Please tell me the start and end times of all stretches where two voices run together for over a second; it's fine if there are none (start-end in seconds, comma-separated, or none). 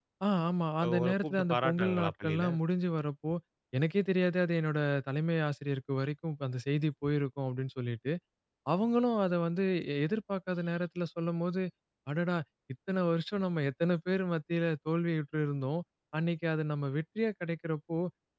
0.9-2.4